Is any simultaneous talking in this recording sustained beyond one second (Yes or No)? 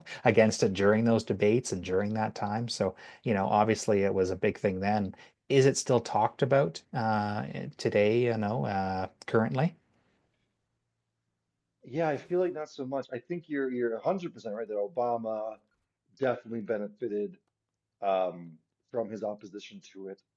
No